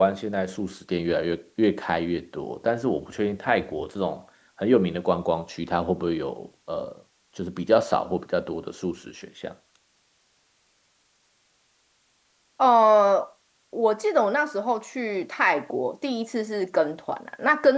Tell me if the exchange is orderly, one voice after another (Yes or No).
Yes